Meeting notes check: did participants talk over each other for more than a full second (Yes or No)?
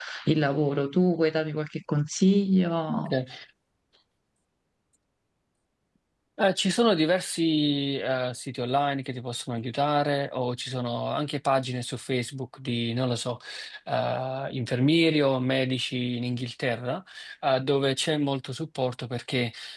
No